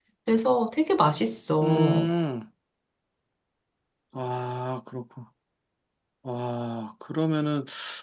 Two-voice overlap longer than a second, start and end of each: none

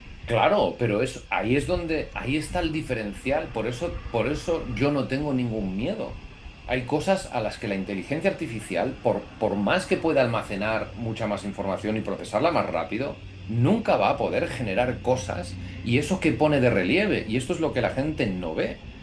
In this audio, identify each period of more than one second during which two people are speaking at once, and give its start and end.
none

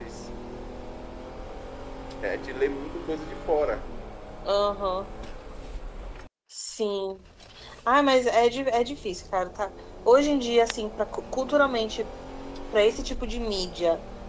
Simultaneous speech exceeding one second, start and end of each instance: none

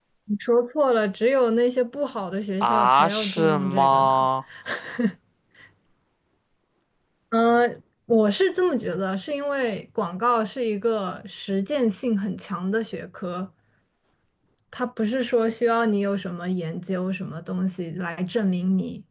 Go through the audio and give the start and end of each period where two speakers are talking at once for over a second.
2.6-4.3

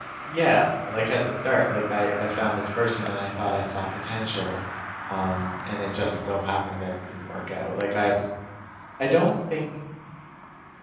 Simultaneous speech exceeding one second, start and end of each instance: none

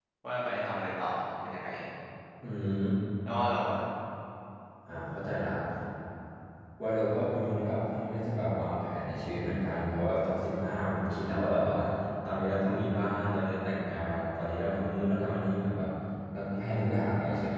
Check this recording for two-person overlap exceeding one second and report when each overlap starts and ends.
none

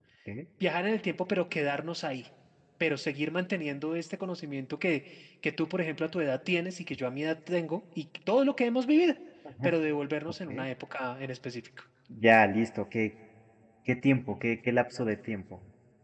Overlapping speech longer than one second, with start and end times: none

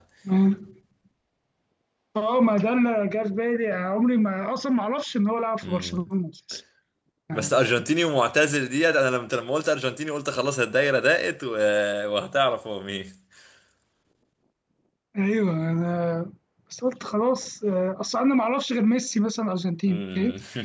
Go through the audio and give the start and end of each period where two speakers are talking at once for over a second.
none

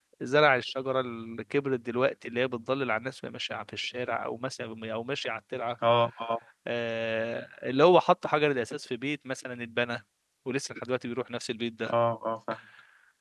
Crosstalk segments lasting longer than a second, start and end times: none

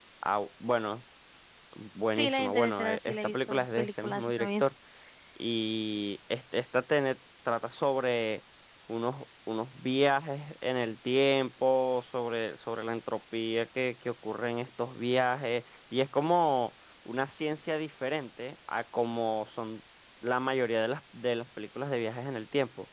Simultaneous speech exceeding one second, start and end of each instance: 2.1-4.6

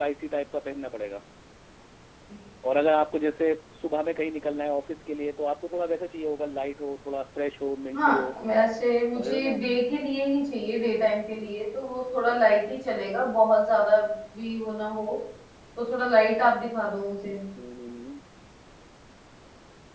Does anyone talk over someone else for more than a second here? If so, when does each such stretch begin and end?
none

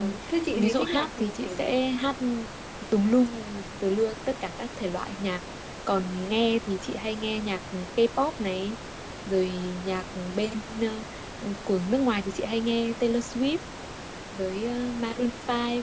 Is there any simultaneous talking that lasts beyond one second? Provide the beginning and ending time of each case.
0.6-1.8

